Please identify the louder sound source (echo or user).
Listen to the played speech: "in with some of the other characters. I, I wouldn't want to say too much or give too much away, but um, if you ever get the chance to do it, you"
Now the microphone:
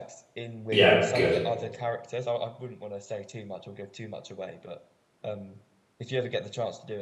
user